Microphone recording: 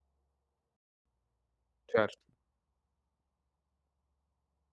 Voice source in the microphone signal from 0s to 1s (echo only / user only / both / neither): neither